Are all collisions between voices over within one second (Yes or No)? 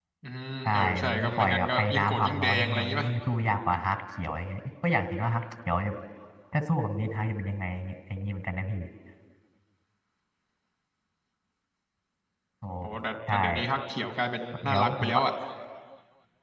No